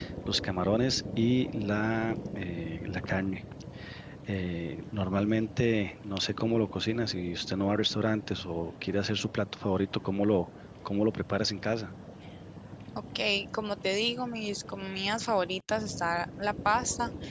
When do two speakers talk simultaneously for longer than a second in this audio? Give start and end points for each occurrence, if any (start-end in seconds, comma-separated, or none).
none